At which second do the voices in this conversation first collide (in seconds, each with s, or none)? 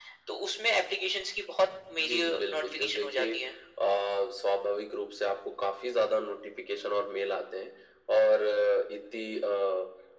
2.0 s